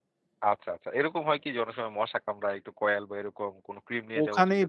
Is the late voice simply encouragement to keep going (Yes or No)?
No